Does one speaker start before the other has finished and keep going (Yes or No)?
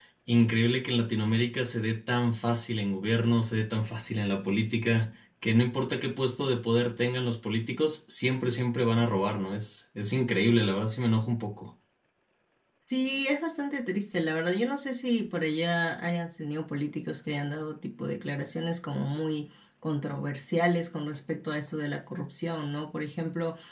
No